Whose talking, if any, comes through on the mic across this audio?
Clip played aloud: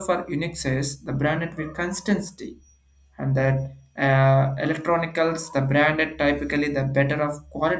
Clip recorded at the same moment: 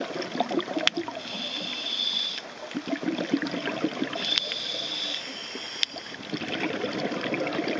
neither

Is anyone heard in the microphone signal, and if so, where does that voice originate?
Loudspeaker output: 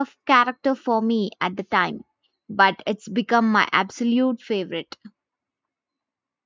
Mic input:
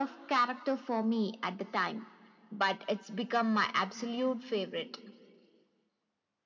echo only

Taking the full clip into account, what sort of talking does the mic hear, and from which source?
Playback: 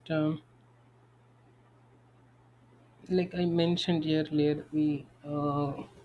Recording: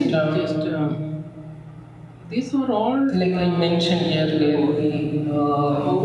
both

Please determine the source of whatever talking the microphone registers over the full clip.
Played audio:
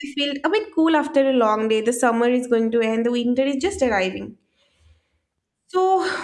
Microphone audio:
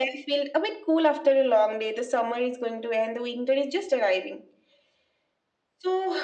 echo only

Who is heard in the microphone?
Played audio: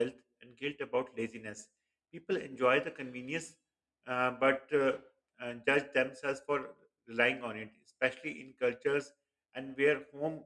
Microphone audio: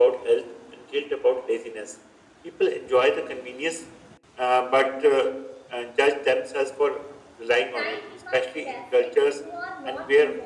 both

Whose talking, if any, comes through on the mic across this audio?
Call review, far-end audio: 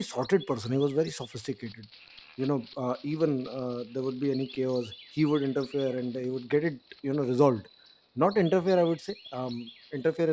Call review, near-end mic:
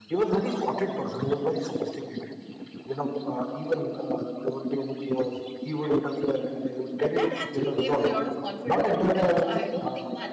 both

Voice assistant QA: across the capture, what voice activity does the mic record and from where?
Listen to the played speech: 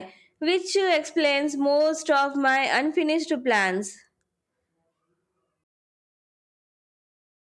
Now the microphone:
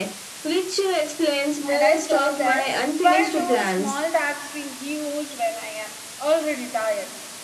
both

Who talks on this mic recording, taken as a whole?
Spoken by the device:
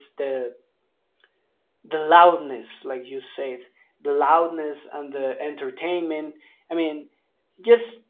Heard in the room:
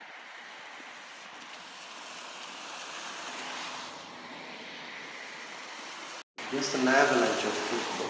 user only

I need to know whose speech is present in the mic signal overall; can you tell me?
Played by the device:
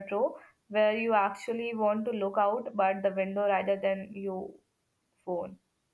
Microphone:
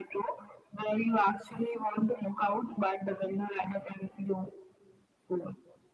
echo only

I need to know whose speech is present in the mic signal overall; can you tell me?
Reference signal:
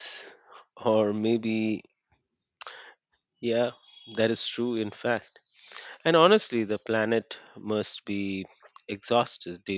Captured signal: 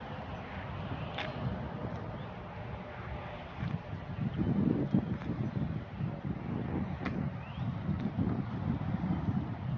neither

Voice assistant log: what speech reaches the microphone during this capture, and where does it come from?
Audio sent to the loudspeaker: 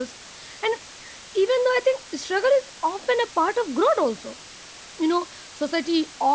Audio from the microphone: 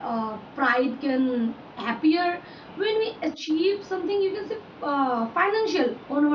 user only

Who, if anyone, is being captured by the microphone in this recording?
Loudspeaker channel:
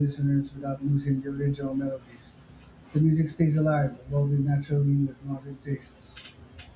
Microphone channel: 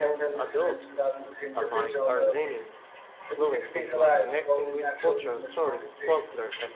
both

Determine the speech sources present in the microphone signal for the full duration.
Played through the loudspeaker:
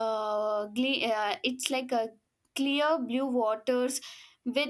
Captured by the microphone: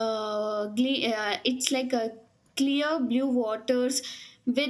echo only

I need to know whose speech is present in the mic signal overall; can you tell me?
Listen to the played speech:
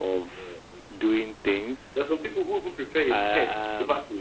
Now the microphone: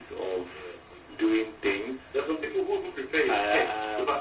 echo only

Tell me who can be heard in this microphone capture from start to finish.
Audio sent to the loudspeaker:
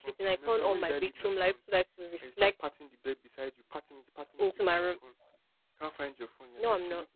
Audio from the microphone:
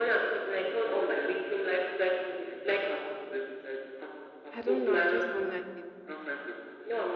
both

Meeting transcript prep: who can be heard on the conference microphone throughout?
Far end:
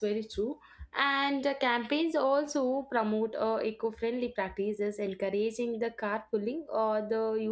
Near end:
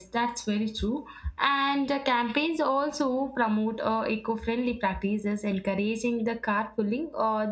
echo only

